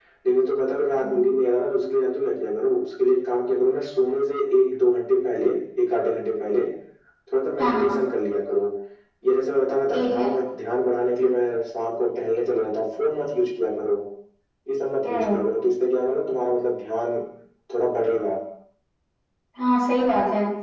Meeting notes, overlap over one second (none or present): none